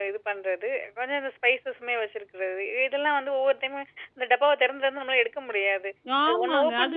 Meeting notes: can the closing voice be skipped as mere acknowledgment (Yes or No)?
No